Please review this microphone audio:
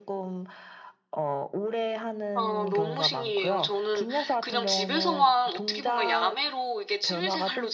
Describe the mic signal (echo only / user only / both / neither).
both